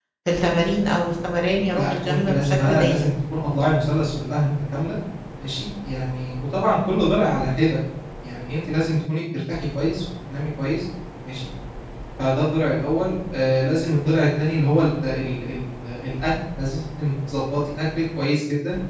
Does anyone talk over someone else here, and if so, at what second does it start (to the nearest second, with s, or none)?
2 s